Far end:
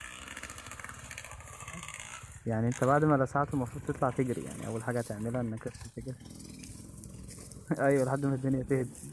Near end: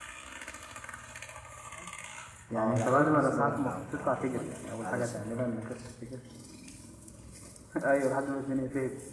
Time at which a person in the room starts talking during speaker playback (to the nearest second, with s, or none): 3 s